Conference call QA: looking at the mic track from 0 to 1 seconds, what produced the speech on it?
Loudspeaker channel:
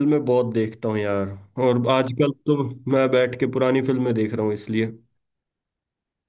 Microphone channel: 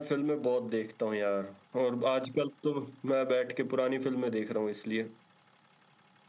echo only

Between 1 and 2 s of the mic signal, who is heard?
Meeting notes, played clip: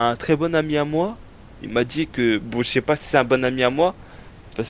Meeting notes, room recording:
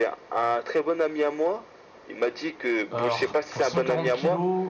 echo only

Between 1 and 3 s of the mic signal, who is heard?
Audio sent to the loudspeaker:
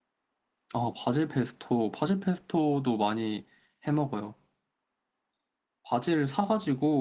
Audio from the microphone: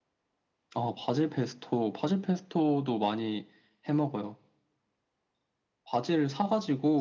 echo only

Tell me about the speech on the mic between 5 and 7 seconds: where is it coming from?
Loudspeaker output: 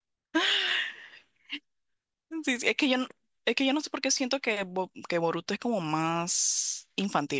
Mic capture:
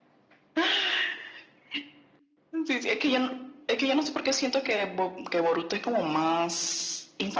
echo only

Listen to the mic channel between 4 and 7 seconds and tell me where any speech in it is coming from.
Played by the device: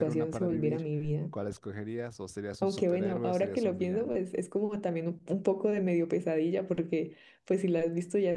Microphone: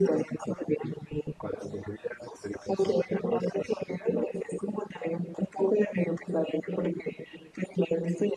echo only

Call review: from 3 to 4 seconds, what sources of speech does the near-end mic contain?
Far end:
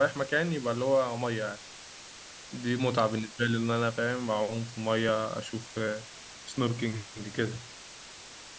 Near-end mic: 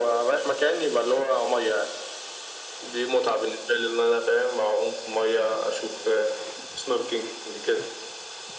echo only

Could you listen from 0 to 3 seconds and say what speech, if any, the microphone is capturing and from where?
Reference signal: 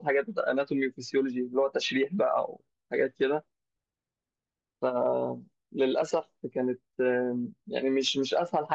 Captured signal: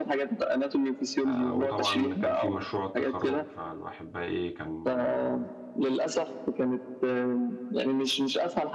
both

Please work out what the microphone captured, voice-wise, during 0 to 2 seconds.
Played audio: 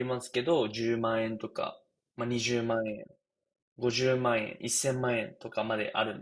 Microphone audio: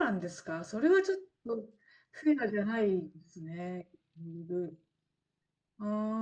user only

